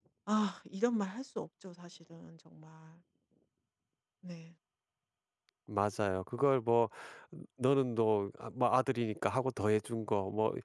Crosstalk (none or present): none